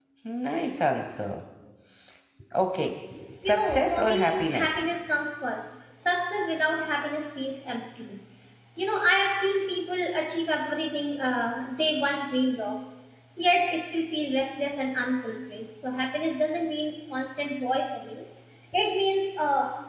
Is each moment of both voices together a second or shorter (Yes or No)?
No